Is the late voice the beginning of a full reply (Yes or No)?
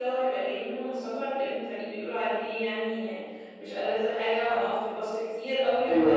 No